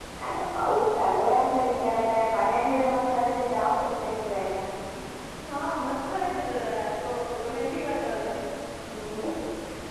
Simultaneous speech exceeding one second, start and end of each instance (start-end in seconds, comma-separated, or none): none